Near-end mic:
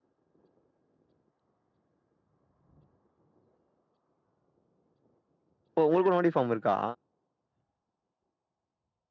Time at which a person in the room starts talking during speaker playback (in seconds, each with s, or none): 5.8 s